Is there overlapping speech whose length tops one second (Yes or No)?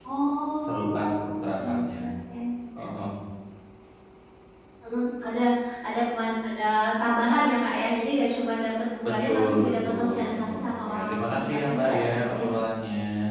Yes